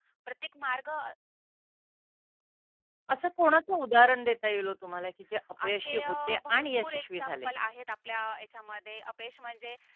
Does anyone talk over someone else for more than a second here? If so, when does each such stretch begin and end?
5.7-7.5

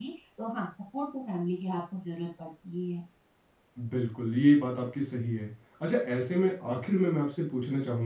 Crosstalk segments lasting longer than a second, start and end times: none

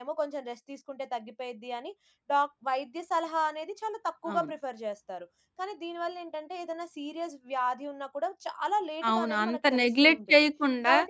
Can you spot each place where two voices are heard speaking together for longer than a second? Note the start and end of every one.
9.1-10.4

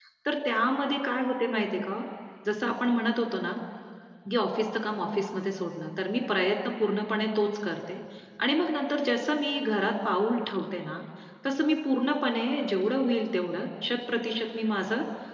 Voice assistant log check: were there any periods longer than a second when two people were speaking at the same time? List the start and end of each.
none

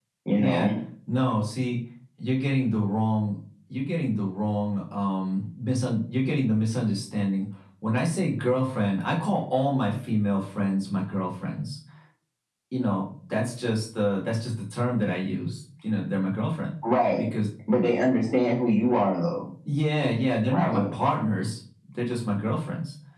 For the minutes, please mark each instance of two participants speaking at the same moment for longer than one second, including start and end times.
none

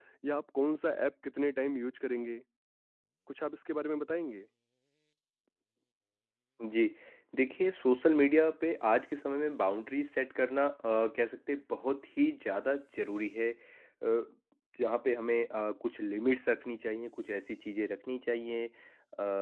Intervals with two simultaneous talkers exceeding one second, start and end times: none

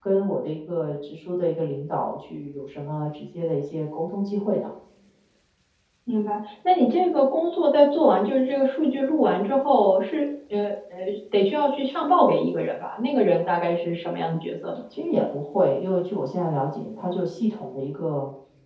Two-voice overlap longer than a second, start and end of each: none

